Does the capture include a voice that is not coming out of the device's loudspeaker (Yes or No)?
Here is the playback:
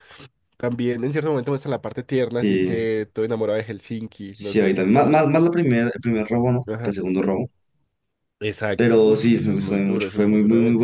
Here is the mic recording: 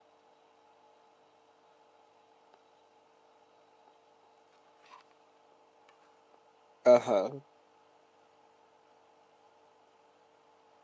Yes